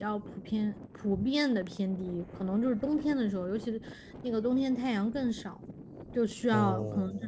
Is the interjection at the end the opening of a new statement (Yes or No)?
No